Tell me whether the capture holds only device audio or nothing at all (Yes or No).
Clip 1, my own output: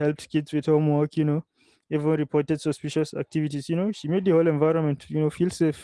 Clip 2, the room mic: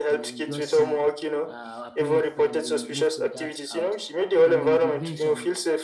No